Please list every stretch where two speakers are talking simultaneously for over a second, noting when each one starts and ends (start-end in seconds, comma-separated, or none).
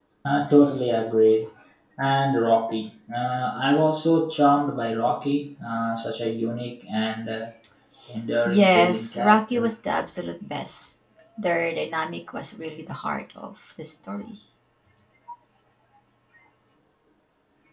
8.4-9.7